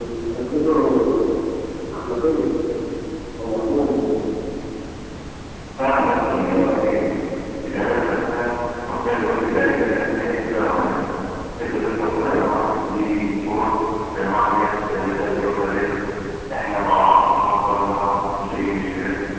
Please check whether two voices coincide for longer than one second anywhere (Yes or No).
No